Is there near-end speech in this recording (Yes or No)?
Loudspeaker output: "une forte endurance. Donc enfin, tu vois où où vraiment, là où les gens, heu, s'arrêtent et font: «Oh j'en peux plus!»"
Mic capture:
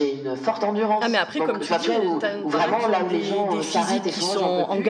Yes